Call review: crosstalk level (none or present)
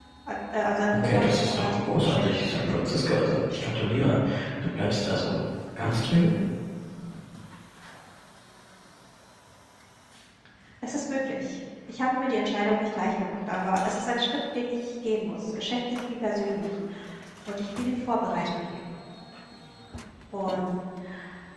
present